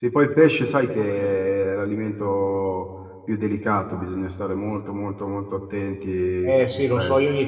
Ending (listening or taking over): taking over